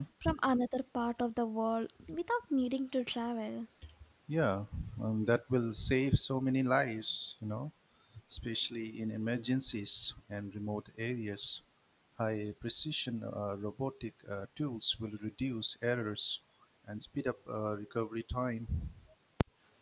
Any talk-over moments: No

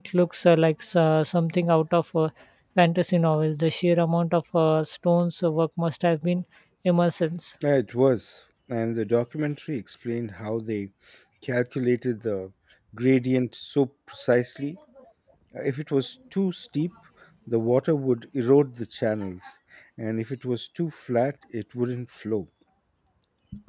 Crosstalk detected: No

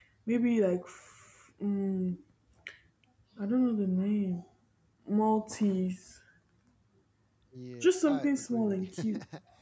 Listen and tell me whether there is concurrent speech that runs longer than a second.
Yes, from 7.8 s

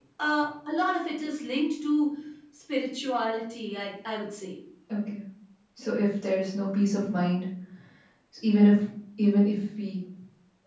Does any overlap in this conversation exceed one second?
No

